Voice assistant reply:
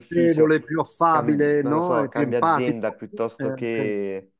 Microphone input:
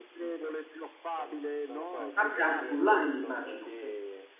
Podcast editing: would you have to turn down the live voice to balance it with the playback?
Yes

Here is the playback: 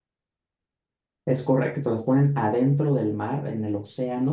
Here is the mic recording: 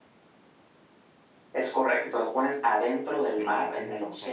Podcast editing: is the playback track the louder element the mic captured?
Yes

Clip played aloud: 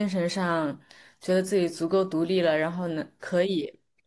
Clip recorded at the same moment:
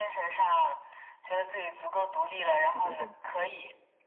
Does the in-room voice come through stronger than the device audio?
No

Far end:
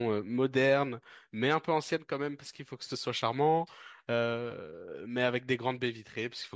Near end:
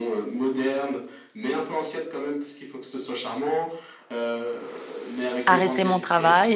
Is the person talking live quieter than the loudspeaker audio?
No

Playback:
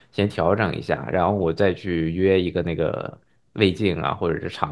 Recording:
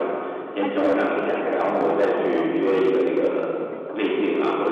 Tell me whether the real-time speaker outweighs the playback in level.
No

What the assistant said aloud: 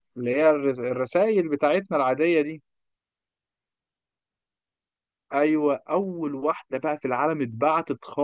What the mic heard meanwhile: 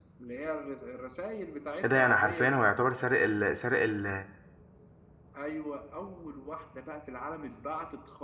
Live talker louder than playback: Yes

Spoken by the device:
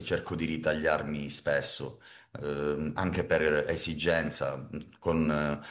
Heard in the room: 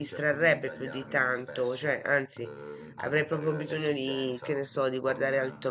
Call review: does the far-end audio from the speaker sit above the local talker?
No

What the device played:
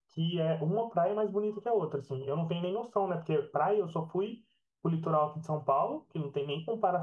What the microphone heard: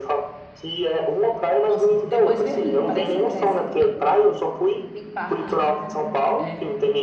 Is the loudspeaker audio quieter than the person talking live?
No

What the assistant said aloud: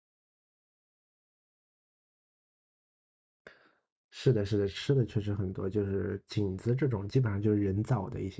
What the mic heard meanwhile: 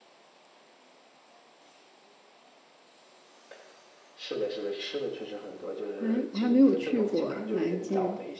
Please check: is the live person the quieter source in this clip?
No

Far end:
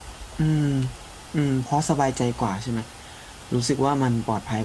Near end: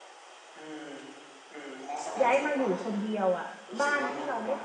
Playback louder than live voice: No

